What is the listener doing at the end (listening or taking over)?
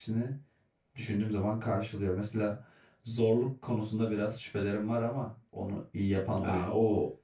taking over